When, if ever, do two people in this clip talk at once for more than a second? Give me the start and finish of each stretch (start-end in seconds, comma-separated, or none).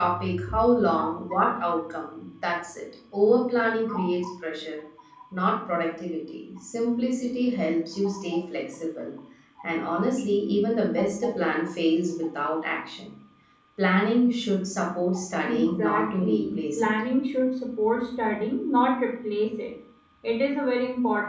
15.4-16.9